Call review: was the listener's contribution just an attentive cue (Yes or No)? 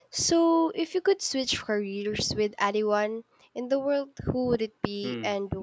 No